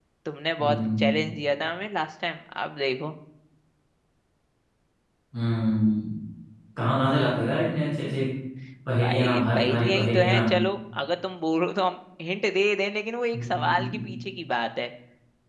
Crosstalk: present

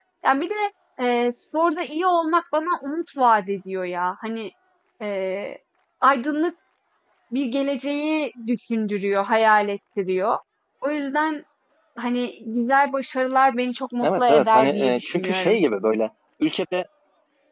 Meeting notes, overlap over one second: present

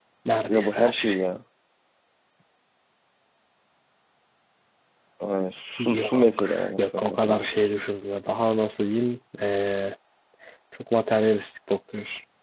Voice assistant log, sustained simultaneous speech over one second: present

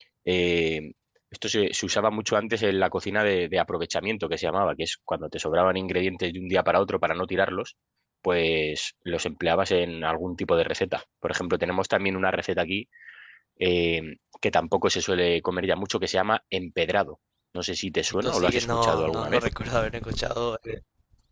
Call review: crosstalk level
present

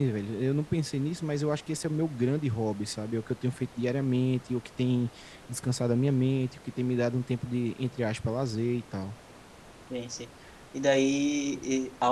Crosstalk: none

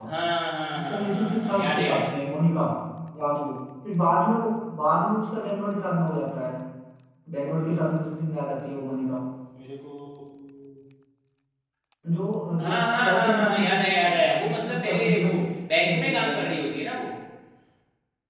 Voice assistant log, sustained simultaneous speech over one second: present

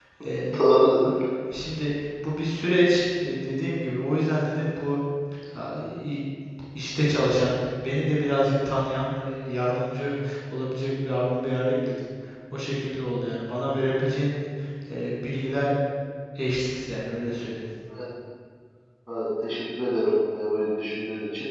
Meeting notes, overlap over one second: none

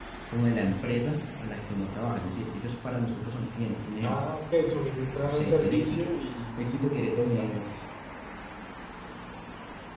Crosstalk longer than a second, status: present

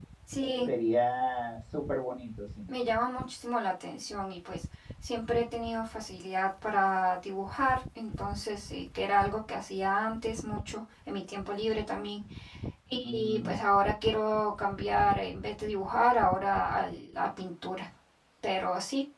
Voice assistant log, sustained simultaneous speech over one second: none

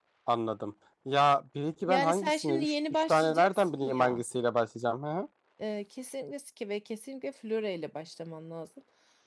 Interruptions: present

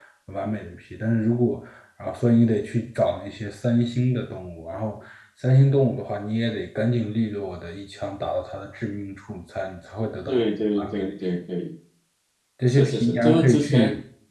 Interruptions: present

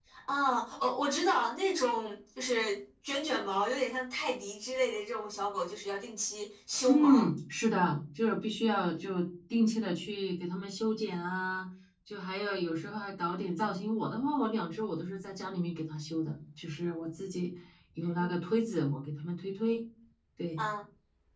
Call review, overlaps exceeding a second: none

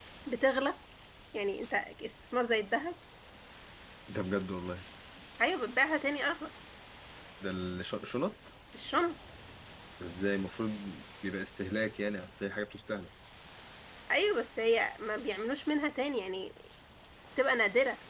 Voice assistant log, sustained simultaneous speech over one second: none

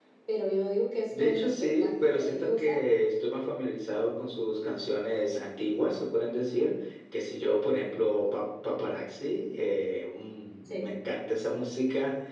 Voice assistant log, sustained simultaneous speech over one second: present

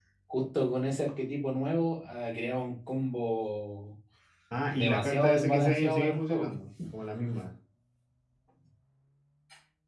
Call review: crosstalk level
present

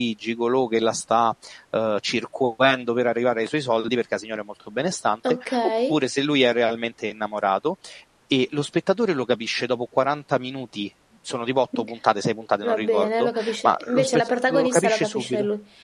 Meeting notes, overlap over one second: present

